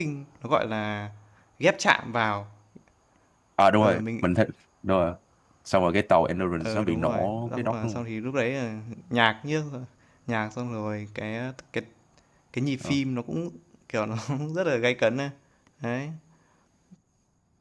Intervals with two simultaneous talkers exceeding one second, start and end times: 6.5-8.0

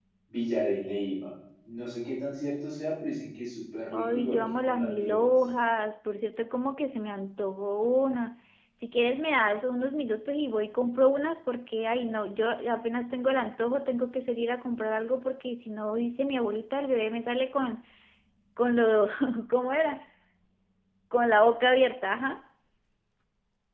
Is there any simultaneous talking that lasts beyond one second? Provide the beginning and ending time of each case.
3.9-5.3

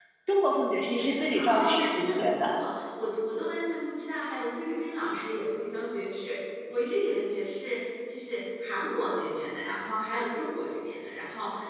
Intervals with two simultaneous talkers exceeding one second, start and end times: 1.3-2.6

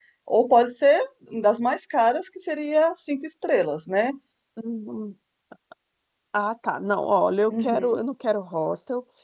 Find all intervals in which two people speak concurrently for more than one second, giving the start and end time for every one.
none

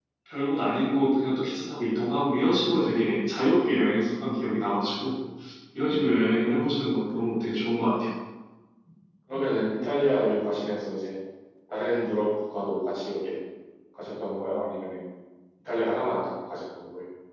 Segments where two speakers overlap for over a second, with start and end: none

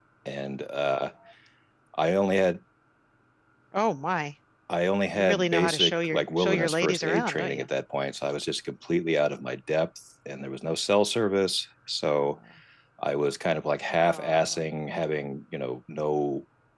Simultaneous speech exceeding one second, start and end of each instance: 5.2-7.6

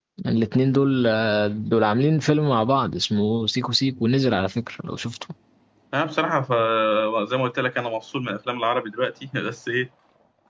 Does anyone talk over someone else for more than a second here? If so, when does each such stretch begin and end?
none

